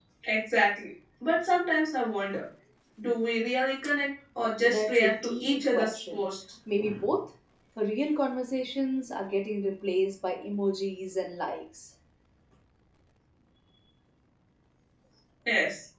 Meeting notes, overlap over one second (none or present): present